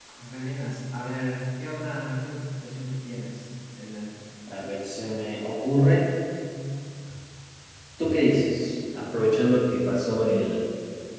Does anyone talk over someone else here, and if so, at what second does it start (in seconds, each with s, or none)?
none